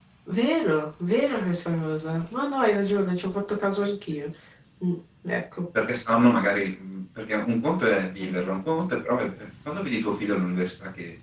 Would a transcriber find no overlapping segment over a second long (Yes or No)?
Yes